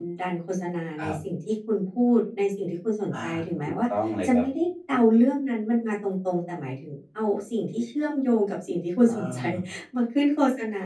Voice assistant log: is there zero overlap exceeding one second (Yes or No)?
Yes